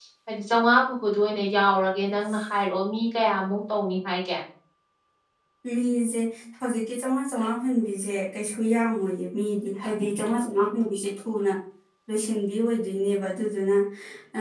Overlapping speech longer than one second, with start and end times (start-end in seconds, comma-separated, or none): none